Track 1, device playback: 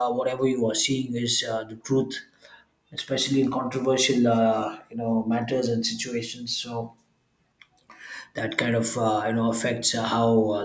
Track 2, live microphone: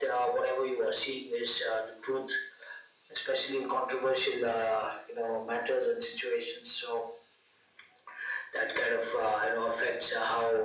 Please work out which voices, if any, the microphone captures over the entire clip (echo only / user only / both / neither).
echo only